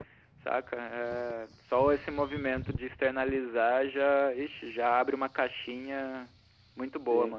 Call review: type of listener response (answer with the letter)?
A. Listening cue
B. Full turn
B